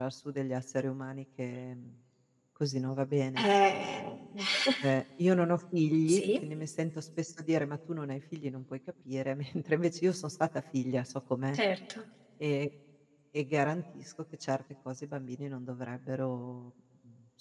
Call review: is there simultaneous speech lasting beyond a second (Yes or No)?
No